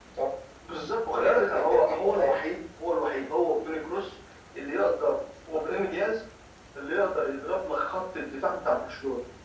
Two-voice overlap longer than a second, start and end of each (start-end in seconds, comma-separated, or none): 1.1-2.5